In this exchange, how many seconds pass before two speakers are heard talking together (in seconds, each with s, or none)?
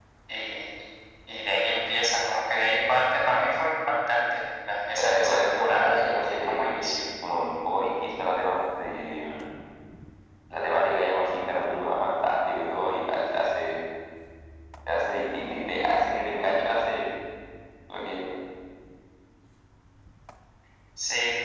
5.0 s